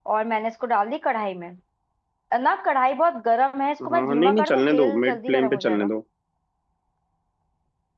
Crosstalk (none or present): present